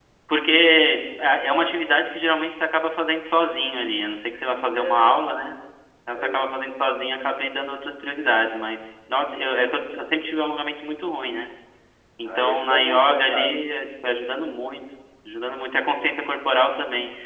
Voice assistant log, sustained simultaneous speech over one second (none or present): present